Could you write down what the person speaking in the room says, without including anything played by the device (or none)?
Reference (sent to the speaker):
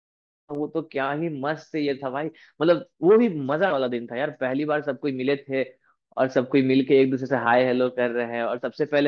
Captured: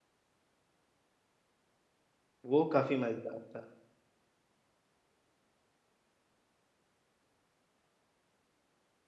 वो काफी मजेदार था